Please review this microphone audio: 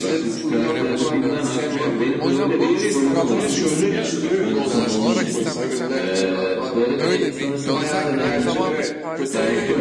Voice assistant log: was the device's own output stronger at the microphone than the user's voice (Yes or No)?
Yes